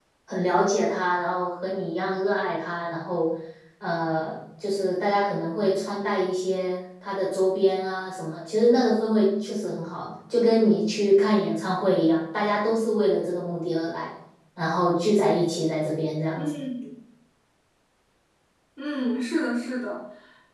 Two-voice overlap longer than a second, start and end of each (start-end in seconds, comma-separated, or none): none